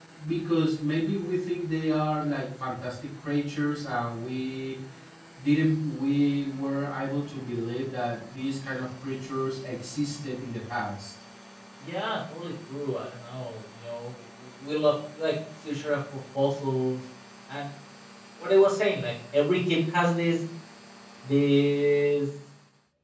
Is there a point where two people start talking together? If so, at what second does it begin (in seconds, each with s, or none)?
none